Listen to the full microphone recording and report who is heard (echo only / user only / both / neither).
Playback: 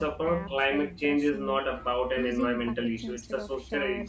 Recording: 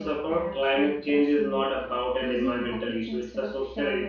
echo only